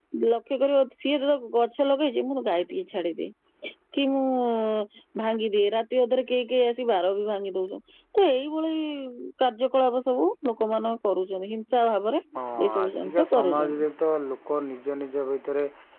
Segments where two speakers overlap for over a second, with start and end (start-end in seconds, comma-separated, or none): 12.6-13.8